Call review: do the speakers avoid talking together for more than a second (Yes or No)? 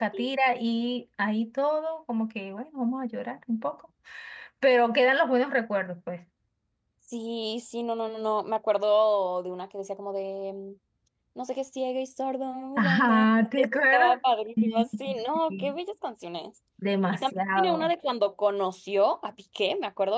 No